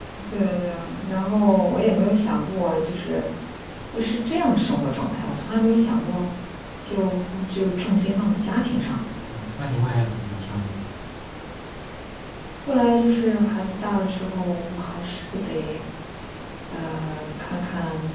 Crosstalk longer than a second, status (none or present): none